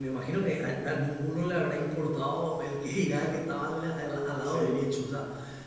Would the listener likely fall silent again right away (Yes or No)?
Yes